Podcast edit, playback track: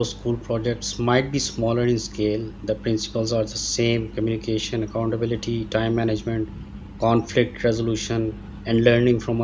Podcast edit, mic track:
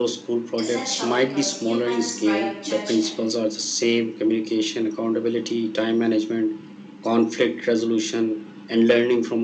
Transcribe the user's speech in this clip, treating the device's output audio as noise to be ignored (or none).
essential because humans' bright judgment,